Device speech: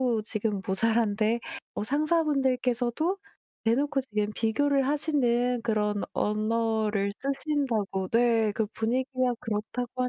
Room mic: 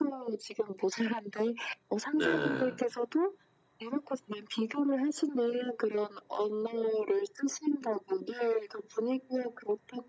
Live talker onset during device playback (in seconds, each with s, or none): 2.1 s